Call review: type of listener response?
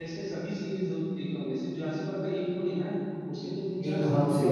taking over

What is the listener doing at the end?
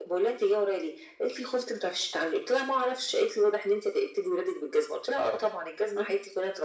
listening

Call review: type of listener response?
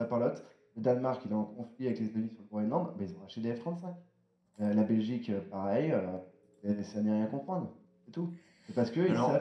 listening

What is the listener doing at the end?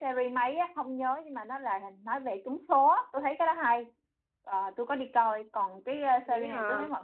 listening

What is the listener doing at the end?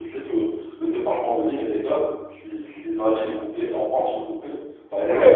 taking over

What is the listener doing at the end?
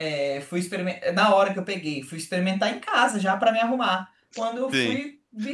taking over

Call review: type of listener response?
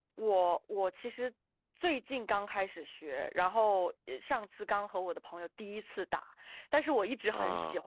listening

